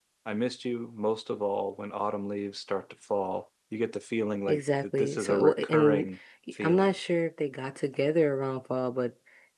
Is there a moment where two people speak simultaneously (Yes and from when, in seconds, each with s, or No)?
Yes, from 4.5 s